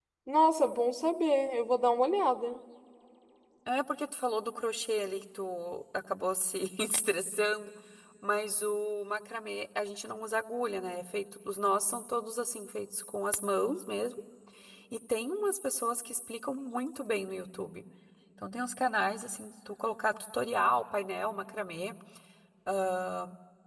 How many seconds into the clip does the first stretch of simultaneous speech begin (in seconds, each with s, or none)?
none